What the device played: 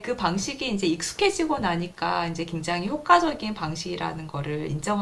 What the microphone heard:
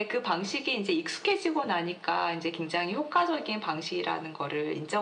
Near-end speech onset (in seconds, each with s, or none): none